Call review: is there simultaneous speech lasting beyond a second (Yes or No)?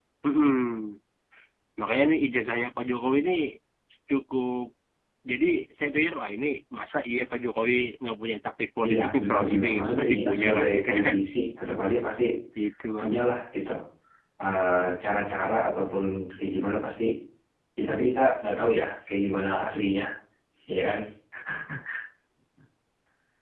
Yes